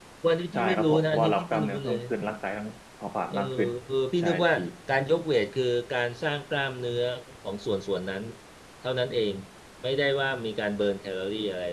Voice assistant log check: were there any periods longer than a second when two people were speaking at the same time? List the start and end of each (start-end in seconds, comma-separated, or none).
0.5-2.0